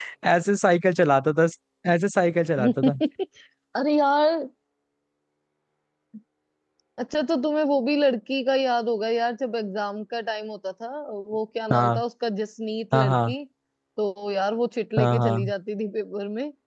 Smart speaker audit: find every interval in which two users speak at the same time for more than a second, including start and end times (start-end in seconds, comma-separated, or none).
none